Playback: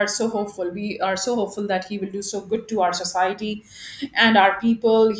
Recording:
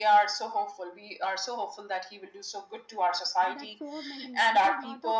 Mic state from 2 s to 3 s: echo only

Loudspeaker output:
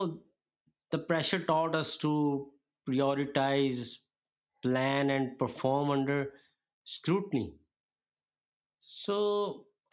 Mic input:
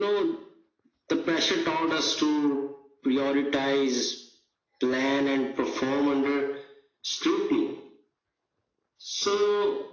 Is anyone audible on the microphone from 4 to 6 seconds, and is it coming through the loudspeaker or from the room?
echo only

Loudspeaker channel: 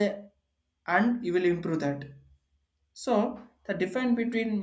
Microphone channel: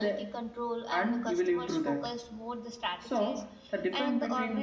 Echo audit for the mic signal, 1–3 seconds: both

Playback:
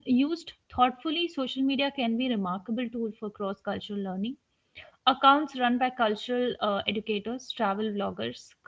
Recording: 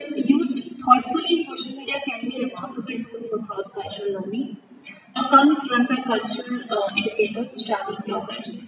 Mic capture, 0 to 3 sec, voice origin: echo only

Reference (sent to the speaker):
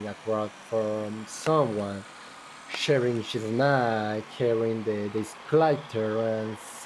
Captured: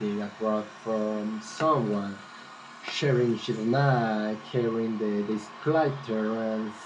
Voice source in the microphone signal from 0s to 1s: echo only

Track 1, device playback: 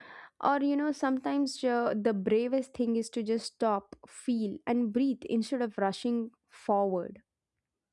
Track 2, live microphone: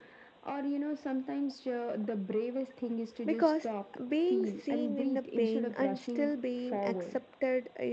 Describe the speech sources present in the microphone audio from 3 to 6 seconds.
both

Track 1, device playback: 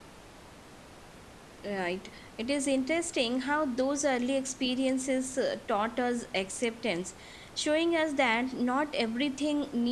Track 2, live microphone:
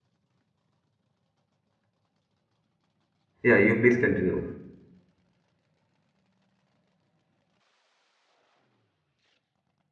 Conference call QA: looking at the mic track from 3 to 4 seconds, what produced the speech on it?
user only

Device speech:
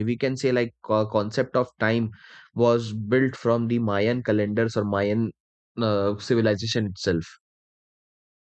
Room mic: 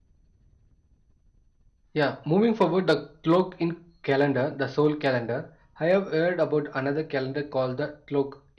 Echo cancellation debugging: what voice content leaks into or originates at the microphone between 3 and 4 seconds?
user only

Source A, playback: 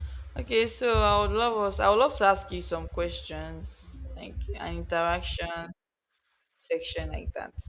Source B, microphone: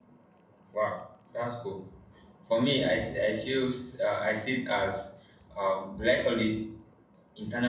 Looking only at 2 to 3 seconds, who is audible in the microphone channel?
user only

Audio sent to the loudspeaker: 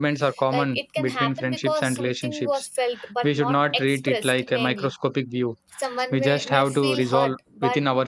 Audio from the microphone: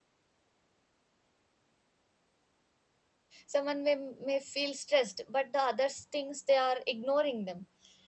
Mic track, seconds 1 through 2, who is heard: neither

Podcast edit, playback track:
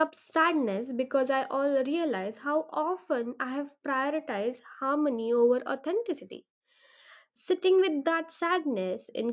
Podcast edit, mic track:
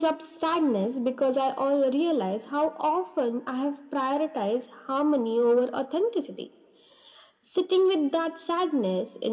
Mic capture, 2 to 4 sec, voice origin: echo only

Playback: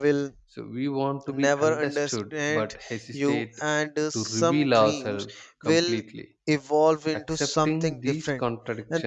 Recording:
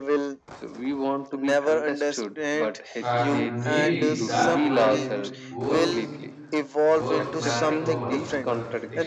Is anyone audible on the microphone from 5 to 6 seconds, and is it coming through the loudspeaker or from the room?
both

